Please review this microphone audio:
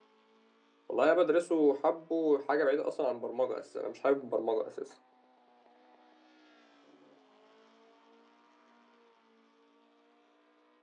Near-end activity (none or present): present